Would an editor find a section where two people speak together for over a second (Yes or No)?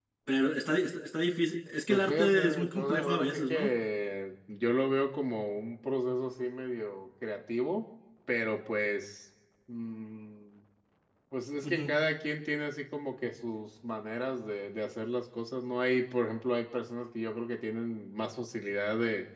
Yes